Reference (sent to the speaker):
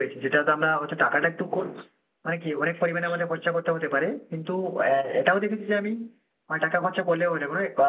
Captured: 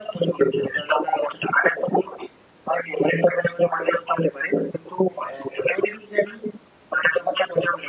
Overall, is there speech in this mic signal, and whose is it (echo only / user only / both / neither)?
echo only